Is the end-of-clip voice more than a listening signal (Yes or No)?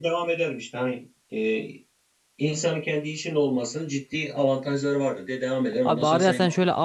Yes